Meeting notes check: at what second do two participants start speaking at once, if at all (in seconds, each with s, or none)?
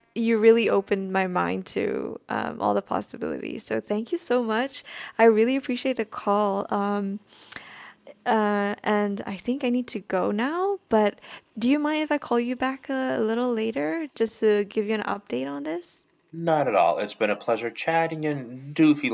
none